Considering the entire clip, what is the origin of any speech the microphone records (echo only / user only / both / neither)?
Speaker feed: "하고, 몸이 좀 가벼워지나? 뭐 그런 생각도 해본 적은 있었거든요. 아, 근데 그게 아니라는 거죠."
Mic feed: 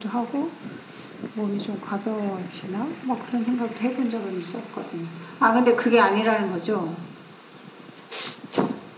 echo only